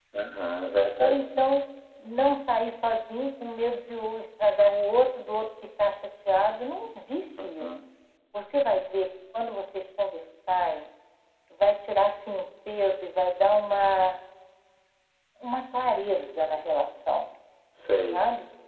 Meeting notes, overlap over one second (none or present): none